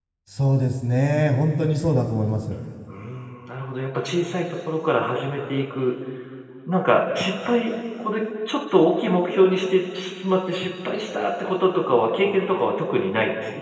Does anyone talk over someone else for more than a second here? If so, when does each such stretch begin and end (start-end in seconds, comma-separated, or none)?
none